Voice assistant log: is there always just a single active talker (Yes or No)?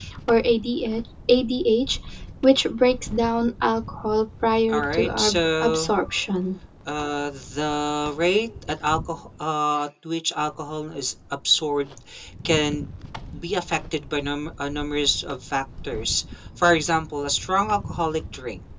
No